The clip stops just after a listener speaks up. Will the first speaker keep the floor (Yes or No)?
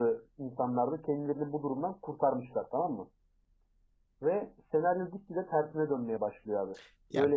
No